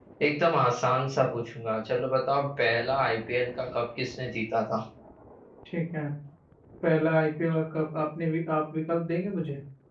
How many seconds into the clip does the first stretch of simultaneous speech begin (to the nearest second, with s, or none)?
none